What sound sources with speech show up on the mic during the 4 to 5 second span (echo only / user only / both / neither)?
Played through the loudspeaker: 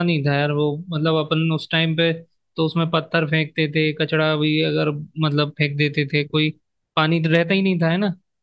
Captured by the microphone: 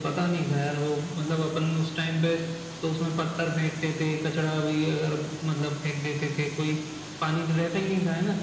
echo only